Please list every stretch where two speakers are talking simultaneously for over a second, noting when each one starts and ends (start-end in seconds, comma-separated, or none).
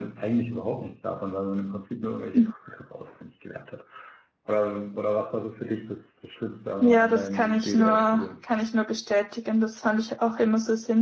6.8-8.3